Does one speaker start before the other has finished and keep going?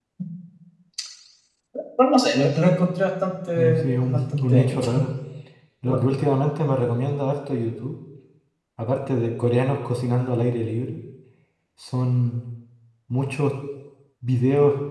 Yes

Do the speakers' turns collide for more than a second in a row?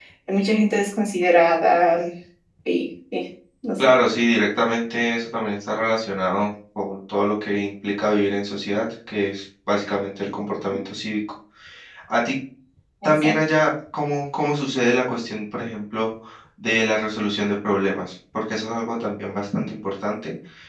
No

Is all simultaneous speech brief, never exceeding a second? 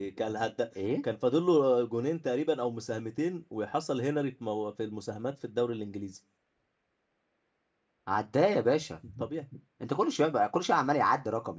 Yes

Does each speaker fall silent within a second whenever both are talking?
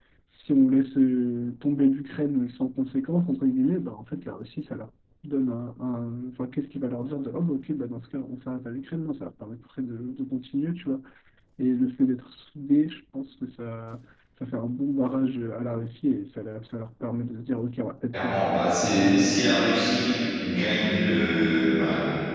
No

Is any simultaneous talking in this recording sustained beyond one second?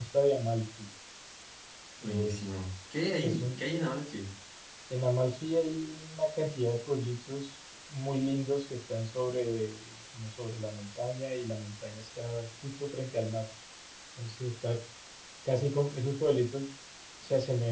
No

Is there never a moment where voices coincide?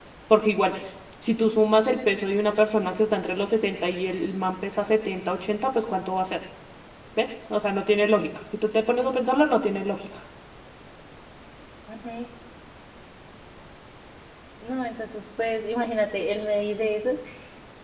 Yes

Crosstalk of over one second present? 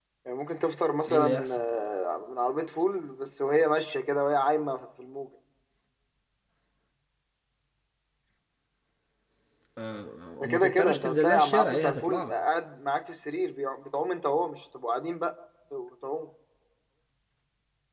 Yes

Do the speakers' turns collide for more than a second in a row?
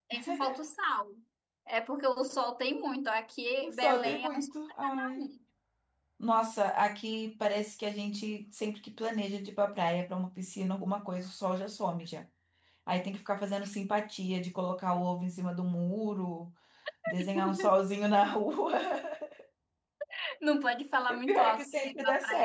Yes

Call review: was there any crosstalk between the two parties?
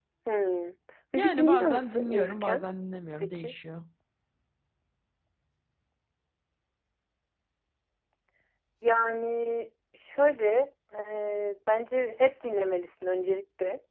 Yes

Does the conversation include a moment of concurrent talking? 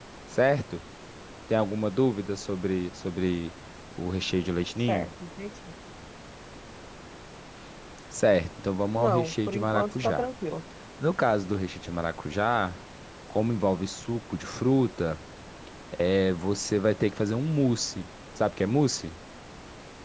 Yes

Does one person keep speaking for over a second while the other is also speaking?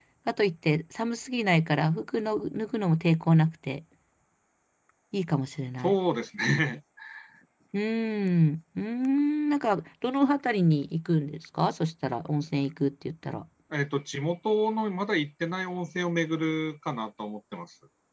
No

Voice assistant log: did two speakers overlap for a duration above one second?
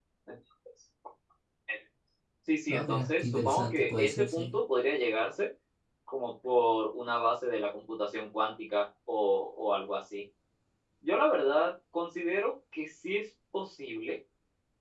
Yes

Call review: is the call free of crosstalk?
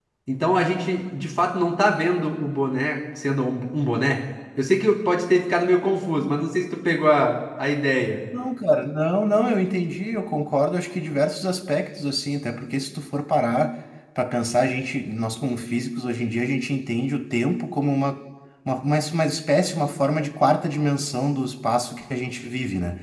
Yes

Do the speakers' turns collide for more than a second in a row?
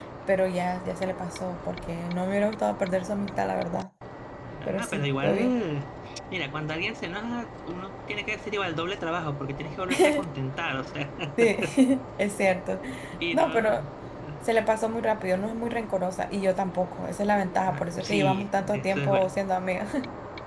Yes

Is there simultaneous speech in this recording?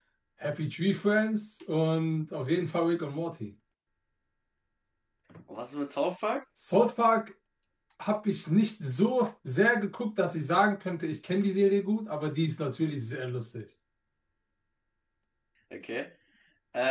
No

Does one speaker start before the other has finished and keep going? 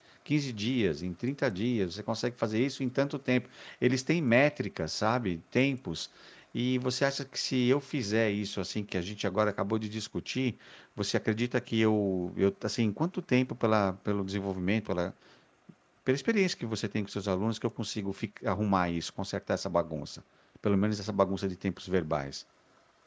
No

